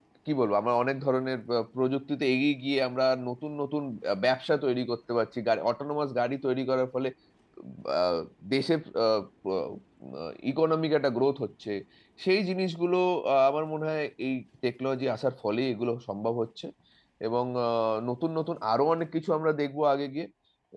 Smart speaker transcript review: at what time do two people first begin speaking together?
none

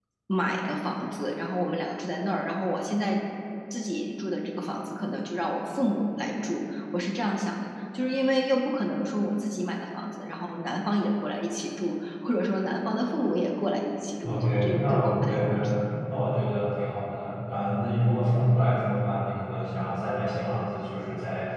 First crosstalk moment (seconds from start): 14 s

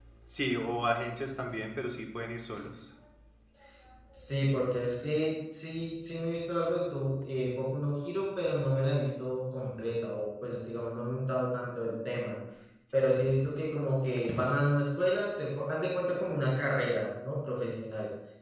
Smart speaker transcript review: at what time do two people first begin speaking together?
none

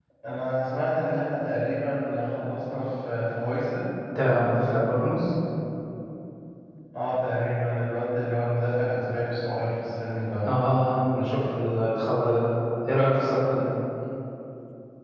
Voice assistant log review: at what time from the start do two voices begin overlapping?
none

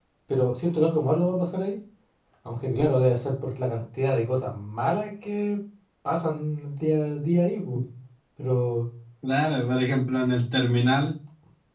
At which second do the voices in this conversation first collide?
none

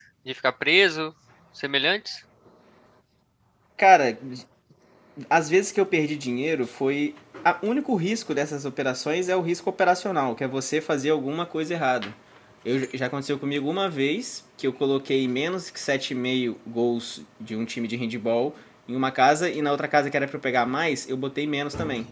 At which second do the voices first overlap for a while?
none

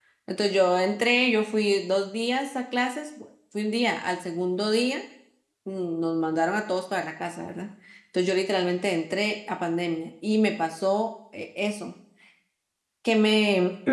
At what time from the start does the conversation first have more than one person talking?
none

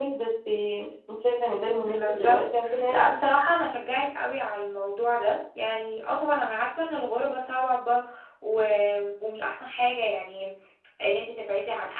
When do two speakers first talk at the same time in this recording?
2 s

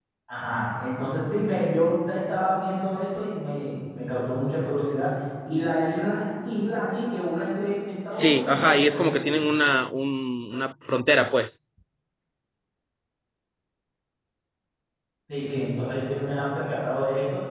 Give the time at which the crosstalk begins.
8 s

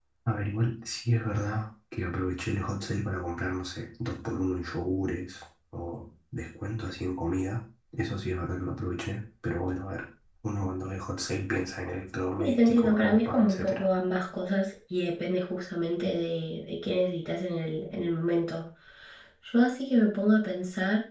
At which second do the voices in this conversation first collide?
12 s

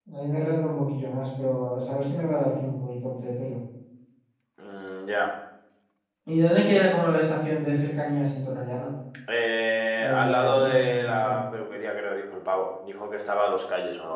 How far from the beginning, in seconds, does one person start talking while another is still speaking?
10 s

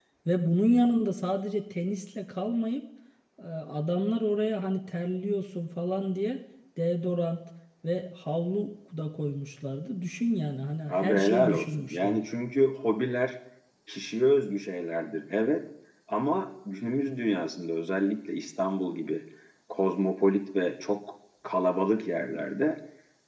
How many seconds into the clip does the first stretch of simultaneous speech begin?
11 s

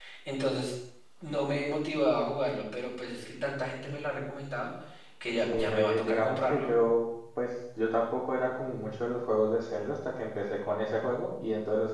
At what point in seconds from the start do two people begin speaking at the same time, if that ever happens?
5 s

